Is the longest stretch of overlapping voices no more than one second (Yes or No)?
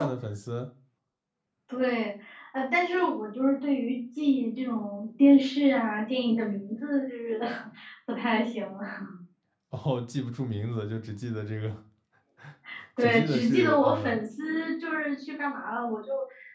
No